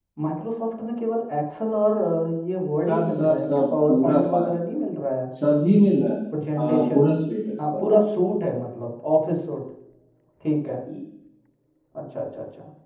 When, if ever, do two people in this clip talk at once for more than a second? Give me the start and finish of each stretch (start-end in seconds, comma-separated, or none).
2.9-4.4